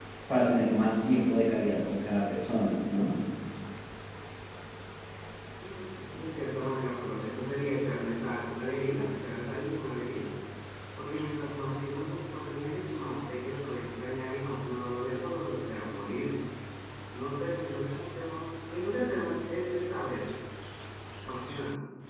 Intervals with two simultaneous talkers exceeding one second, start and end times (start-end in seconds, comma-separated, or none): none